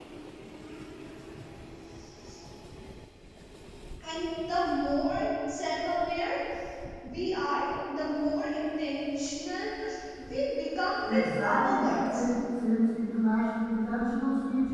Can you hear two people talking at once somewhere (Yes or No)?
Yes